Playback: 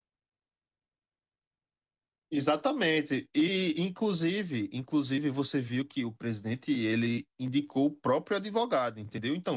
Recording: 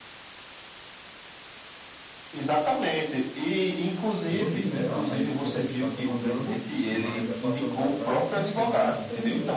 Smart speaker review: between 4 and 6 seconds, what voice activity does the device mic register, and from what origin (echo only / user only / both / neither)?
both